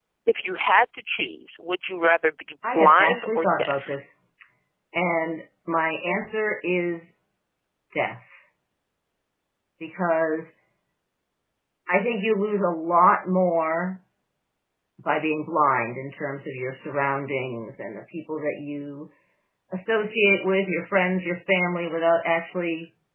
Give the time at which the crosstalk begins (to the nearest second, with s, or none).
3 s